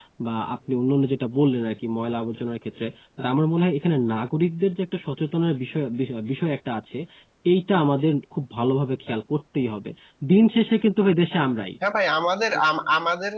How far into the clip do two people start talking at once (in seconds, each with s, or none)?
none